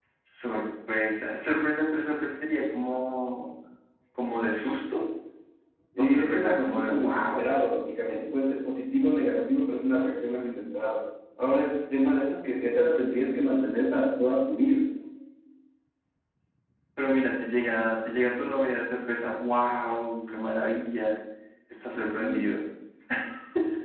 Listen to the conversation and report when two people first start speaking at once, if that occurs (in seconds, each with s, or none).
6.0 s